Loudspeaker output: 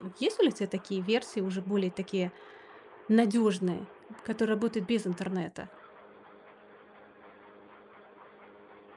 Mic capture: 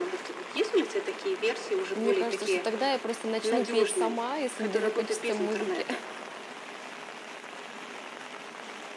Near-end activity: present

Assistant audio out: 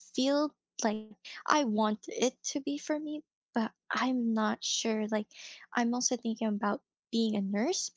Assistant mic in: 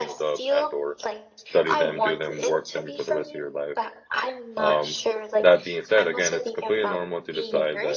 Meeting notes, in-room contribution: present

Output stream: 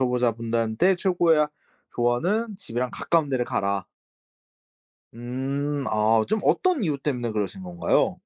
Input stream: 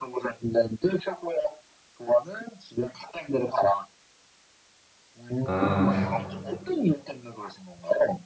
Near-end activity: present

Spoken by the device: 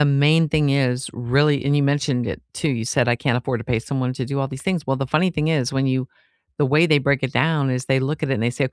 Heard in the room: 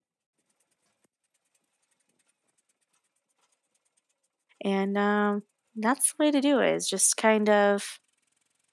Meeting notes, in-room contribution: present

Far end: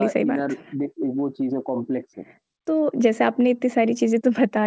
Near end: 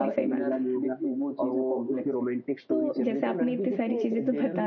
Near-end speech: present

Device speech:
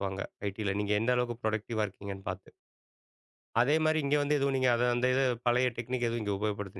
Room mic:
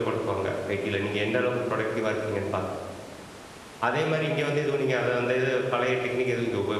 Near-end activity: none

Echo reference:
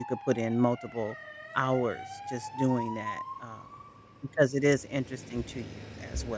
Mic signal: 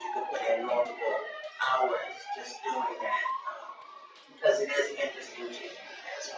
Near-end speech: none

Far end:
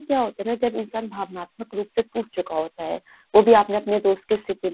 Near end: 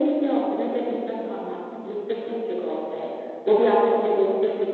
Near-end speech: none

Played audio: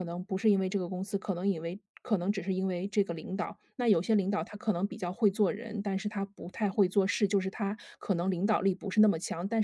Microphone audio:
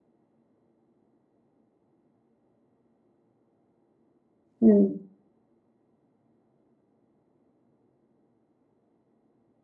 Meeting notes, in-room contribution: present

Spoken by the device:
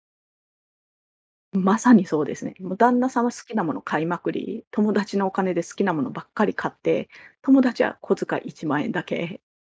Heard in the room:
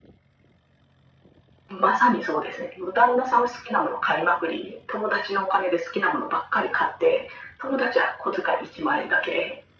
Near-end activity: none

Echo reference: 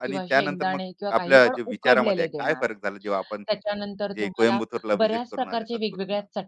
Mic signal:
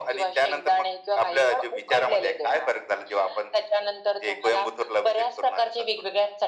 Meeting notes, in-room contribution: none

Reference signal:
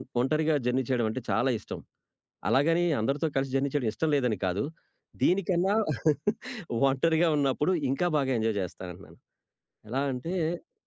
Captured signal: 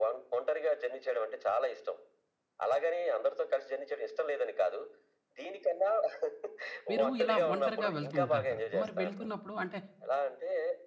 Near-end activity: present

